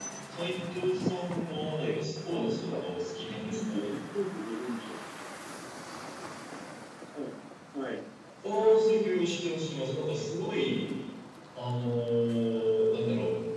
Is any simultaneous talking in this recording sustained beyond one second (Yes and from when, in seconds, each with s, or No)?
Yes, from 1.8 s